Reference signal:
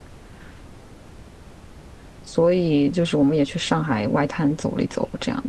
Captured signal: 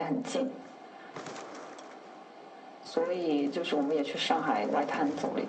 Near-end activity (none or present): none